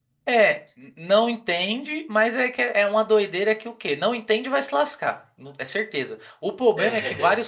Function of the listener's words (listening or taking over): listening